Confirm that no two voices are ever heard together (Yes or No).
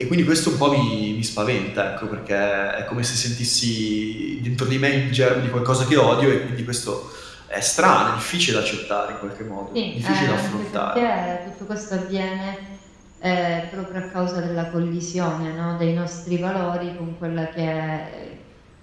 No